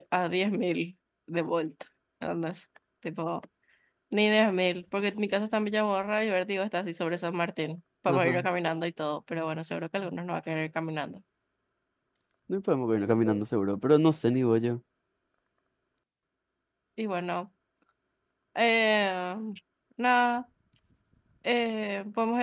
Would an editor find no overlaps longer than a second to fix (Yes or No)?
Yes